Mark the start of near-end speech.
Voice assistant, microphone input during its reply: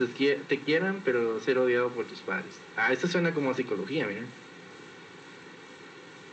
none

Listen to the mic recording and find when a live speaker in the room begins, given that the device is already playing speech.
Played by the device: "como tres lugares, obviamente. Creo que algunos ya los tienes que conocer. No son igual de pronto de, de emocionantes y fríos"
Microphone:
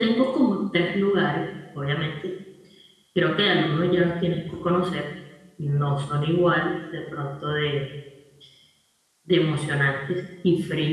none

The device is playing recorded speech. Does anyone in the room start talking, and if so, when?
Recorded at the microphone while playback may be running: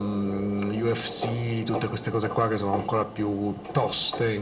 none

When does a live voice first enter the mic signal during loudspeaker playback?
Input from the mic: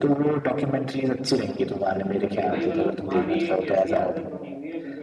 2.4 s

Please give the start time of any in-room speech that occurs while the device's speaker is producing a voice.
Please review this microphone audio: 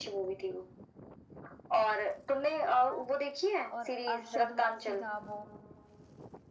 2.7 s

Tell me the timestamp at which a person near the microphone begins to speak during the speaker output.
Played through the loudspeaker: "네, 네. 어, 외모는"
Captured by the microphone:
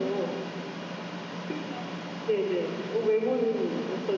none

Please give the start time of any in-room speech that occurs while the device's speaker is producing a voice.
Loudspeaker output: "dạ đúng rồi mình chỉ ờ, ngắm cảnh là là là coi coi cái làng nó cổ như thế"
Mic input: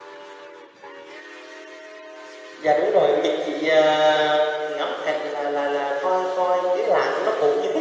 none

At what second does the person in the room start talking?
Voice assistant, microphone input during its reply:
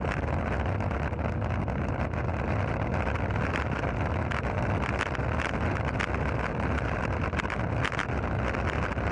none

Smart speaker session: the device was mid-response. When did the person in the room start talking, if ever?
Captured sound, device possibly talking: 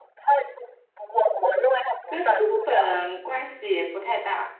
2.0 s

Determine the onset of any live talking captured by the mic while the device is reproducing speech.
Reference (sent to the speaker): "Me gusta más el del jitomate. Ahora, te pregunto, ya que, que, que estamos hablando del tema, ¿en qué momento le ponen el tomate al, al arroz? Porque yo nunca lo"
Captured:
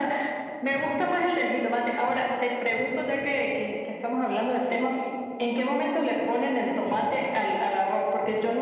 none

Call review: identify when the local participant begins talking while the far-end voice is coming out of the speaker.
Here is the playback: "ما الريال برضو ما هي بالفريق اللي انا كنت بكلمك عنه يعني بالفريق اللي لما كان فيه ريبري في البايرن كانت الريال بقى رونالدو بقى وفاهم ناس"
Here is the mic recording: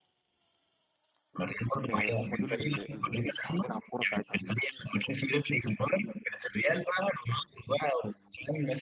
1.9 s

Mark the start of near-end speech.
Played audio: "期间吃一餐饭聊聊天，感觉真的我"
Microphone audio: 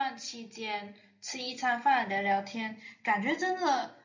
none

